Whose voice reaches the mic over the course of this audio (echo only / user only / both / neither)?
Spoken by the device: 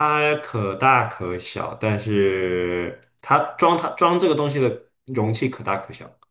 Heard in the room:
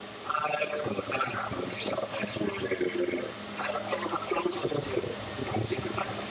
echo only